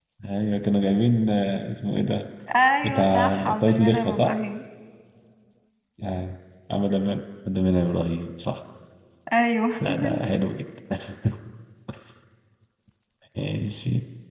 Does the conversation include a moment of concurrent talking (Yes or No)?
Yes